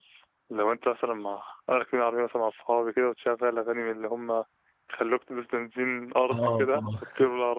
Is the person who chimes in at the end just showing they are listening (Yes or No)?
Yes